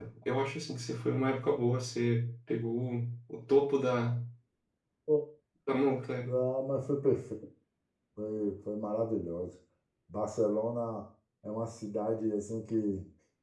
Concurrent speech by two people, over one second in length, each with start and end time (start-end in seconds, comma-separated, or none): none